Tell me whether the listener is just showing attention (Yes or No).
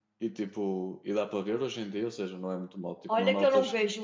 No